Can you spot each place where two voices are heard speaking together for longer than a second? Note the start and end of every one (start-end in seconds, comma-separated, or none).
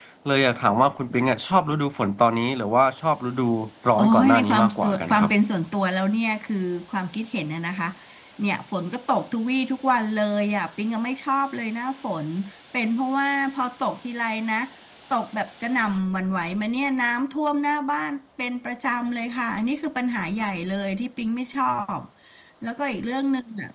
4.0-5.3